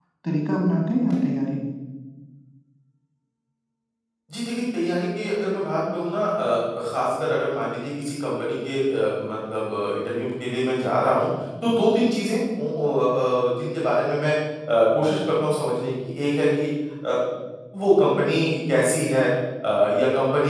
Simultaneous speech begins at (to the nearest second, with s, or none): none